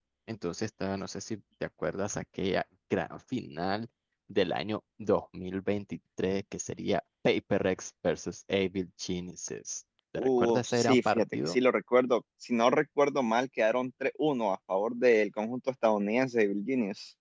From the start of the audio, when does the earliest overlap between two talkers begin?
10.2 s

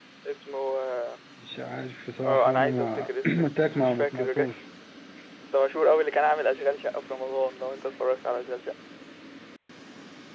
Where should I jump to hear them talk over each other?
2.2 s

